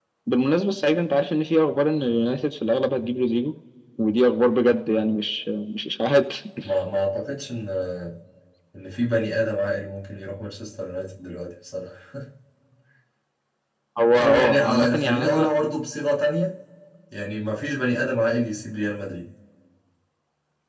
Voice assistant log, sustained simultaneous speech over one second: present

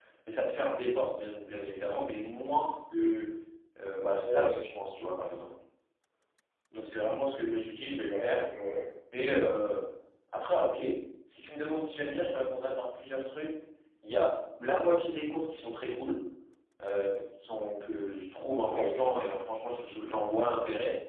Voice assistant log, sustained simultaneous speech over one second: none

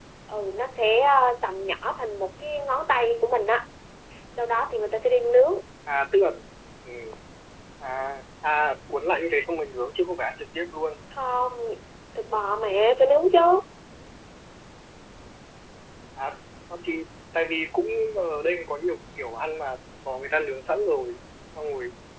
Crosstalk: none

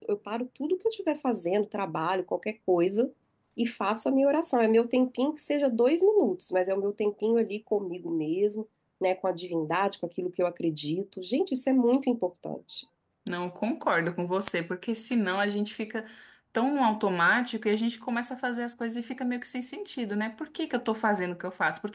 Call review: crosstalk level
none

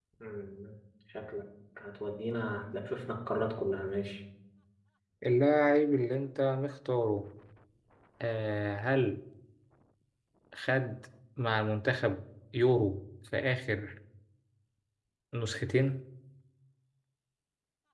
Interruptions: none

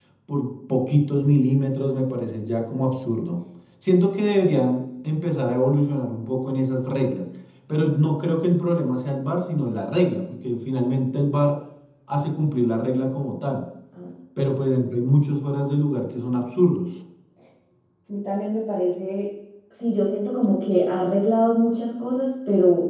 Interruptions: none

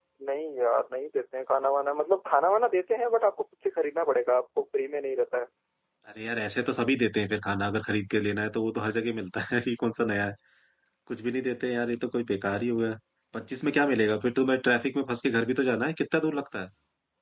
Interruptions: none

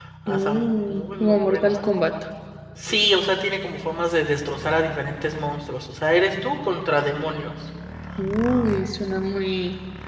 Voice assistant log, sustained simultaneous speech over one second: present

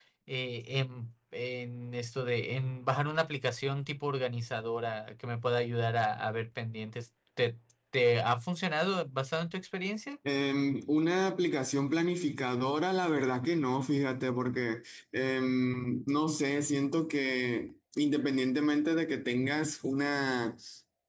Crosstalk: none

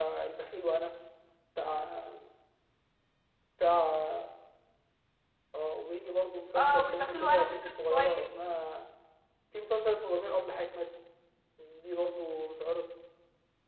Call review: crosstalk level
present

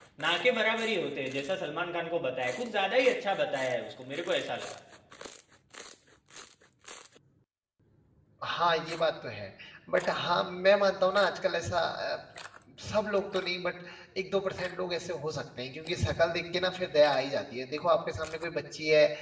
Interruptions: none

